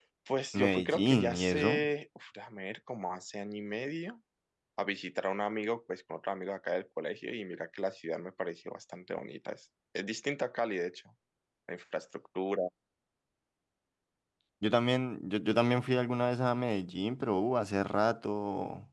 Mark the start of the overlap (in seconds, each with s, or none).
0.5 s